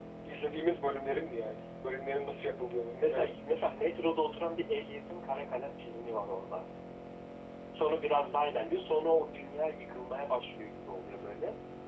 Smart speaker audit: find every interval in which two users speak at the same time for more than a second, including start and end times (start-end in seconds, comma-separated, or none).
none